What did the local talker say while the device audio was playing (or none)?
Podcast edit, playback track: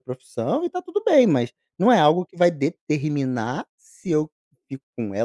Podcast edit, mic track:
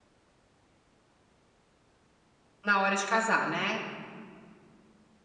Na hora de casar, né?